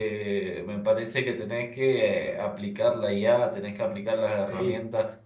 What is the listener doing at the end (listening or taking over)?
listening